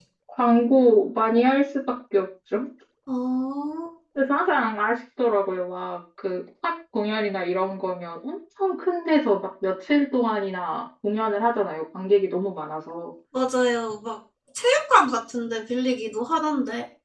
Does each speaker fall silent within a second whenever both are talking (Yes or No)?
Yes